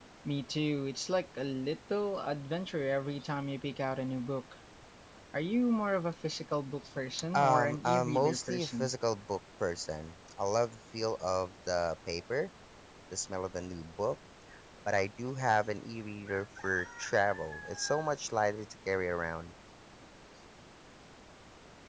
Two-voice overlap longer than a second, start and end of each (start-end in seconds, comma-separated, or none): 7.3-8.9